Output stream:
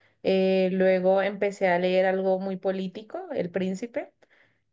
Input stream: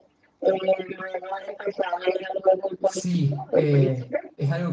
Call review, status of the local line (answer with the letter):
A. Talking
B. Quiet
A